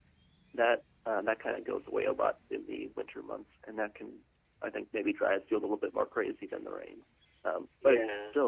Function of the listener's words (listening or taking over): listening